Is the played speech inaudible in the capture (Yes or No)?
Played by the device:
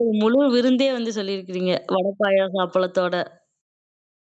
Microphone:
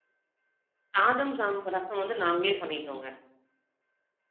Yes